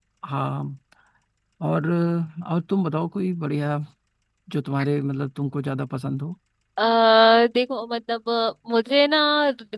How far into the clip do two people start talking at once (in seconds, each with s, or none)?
none